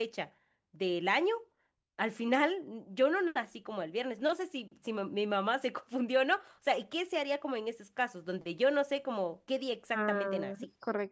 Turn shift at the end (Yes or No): Yes